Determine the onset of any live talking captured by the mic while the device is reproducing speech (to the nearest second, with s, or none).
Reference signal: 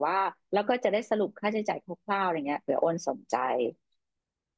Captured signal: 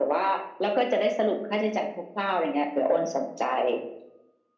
none